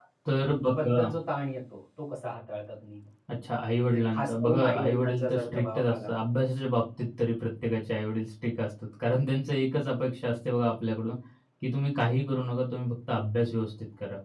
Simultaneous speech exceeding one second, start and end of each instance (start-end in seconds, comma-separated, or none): 3.7-6.1